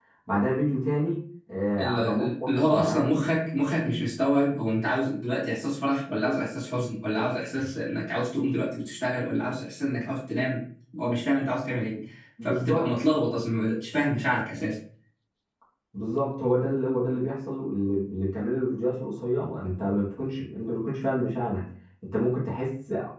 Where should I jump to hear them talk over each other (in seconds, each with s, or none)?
1.8 s